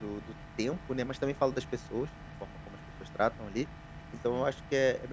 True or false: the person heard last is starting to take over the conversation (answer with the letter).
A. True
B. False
B